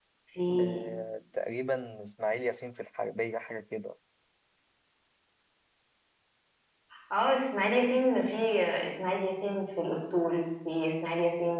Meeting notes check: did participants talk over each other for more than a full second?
No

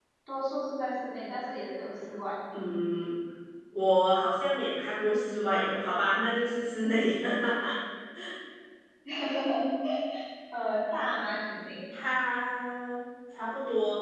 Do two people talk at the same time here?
No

